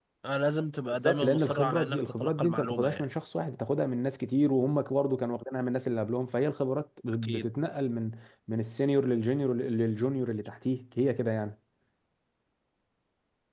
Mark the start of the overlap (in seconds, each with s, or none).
0.9 s